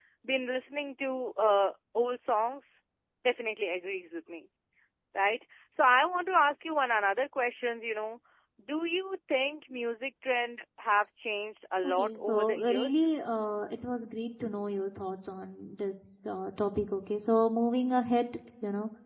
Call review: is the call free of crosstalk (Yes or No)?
No